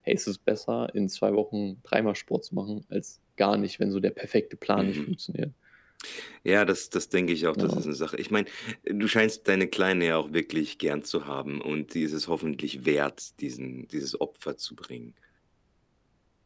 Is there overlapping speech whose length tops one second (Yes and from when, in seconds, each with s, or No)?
No